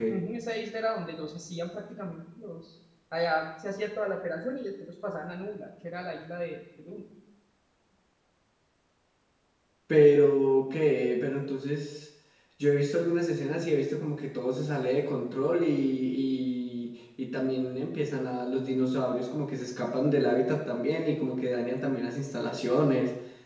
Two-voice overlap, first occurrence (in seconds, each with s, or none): none